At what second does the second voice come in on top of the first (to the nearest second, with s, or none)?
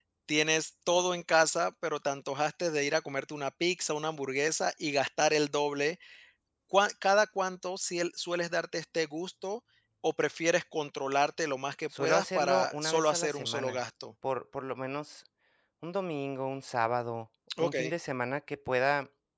12 s